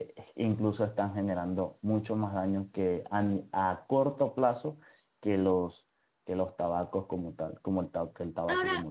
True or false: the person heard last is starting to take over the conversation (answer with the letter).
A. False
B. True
B